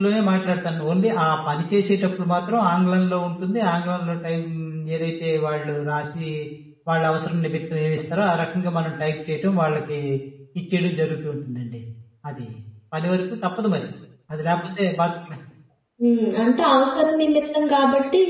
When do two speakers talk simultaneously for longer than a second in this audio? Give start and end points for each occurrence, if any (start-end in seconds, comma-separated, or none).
none